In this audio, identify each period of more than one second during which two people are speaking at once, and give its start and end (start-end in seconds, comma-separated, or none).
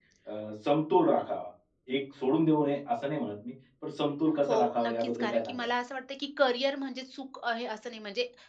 4.5-5.7